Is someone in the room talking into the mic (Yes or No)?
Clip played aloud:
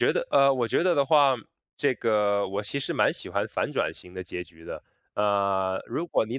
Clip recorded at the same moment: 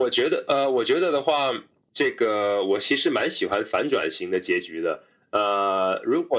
No